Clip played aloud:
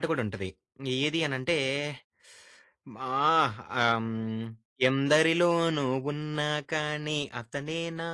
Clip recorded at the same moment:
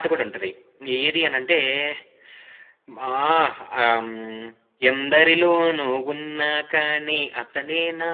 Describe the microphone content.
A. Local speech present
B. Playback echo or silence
B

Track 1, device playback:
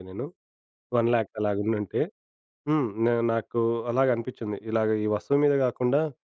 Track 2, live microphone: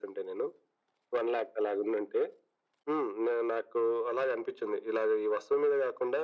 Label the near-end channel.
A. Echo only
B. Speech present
A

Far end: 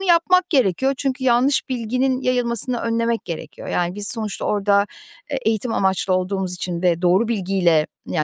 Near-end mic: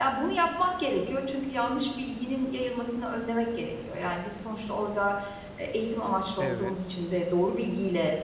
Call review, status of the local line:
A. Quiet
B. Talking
B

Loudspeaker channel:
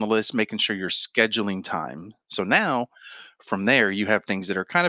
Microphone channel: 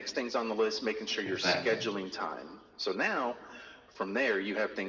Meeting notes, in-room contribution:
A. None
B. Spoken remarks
B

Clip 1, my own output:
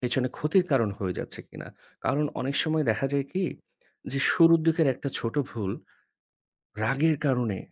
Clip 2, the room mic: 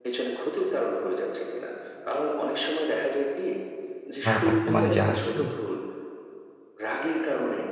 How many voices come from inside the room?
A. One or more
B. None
A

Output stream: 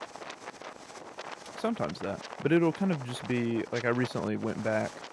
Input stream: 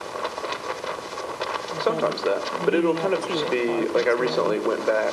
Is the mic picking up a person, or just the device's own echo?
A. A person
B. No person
A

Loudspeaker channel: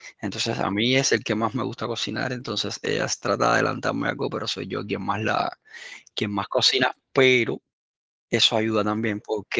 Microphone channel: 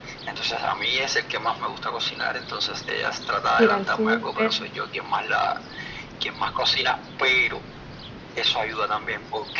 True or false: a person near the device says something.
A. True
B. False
A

